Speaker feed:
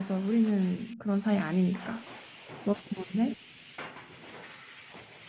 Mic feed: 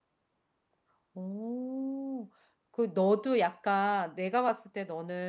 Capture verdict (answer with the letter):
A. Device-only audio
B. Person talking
B